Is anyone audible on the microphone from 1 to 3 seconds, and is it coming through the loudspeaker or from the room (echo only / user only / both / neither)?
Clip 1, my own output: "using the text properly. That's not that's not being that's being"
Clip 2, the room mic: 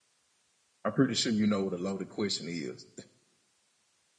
user only